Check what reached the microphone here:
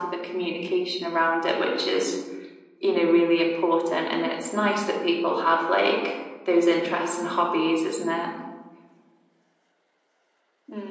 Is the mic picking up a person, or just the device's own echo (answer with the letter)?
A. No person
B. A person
A